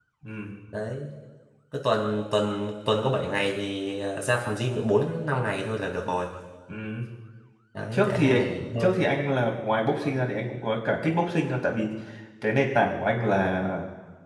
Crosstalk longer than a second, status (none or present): none